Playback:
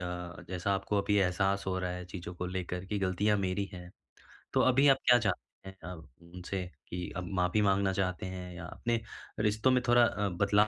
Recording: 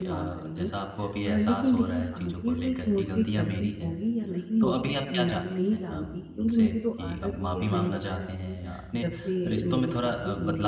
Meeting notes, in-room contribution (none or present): present